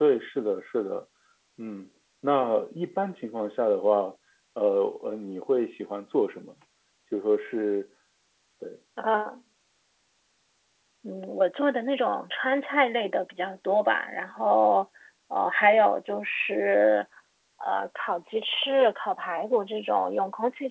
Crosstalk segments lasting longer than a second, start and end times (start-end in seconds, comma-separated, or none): none